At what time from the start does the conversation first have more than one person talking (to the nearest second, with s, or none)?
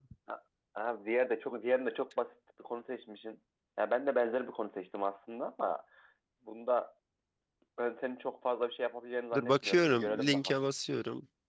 9 s